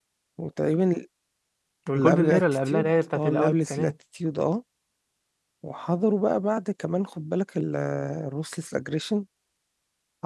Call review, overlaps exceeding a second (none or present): present